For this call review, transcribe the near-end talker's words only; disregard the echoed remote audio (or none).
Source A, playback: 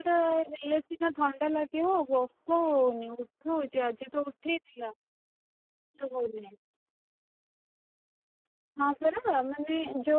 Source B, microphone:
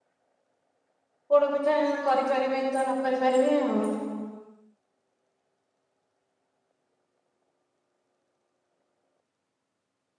ପୋଡ ପିଠା କରିପାରିବେ ତା ନ କରି ପାରିବେ ଆଉ।